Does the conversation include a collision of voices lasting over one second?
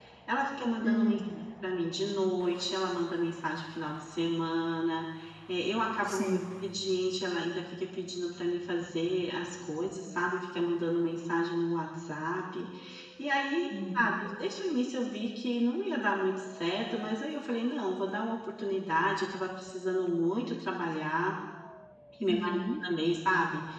No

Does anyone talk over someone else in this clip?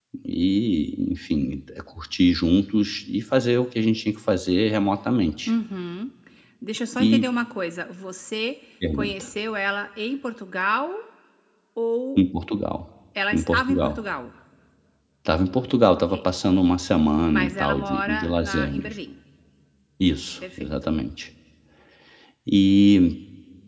Yes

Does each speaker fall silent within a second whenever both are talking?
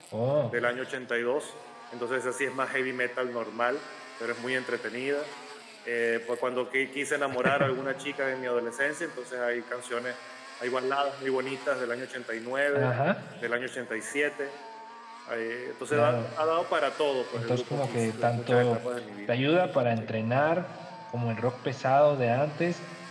No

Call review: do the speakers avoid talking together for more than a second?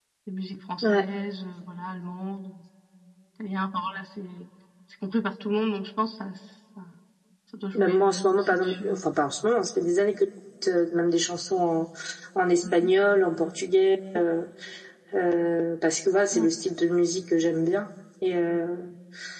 No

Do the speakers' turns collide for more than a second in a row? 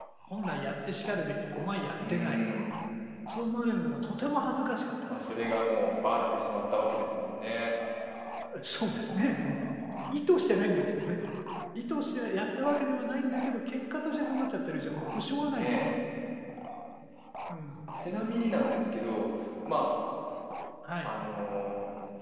No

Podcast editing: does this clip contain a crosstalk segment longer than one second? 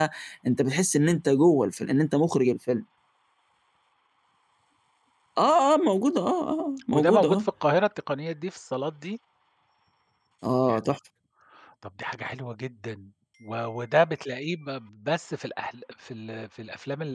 No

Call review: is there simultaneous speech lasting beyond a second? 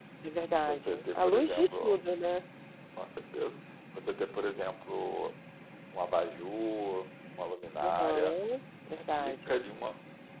Yes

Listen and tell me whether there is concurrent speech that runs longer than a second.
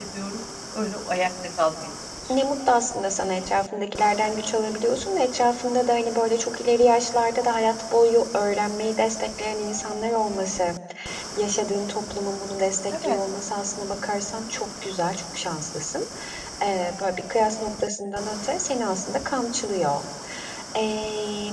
No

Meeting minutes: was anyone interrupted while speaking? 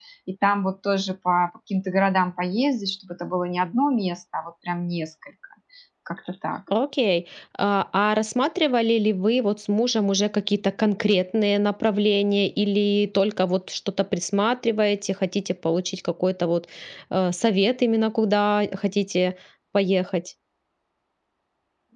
No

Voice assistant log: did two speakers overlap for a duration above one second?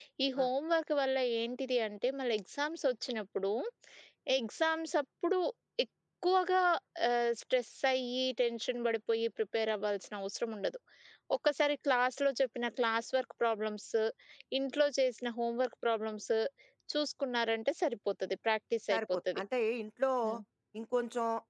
No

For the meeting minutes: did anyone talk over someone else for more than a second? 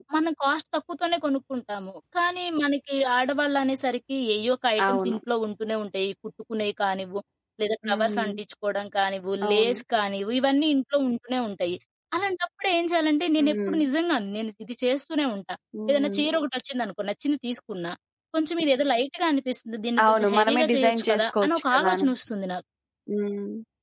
Yes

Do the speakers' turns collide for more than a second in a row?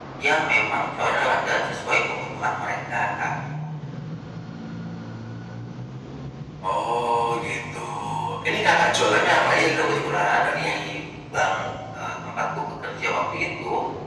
Yes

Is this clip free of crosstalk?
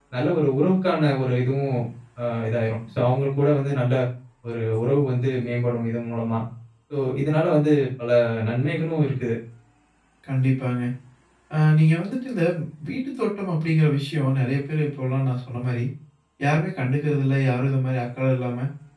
Yes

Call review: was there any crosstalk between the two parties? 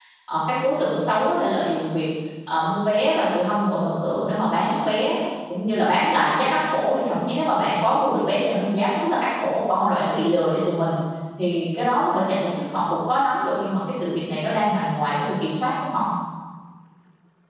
No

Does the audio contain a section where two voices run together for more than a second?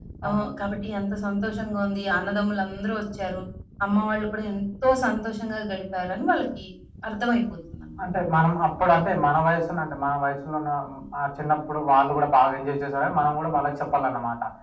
No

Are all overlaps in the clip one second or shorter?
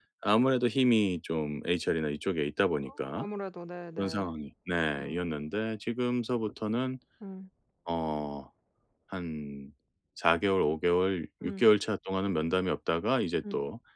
Yes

